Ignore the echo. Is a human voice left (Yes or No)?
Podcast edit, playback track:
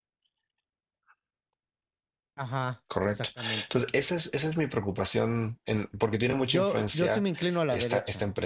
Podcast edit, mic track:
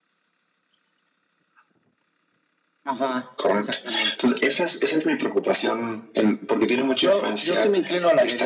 No